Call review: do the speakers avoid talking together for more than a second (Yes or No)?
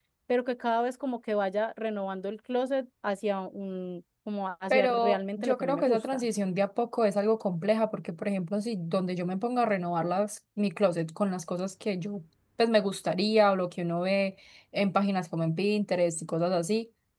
No